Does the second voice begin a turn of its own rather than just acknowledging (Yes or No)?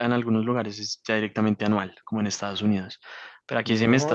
Yes